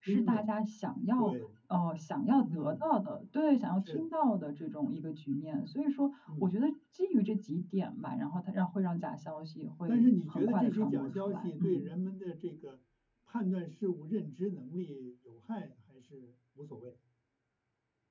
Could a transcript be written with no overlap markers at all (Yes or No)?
No